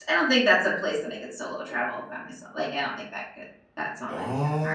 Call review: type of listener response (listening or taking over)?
taking over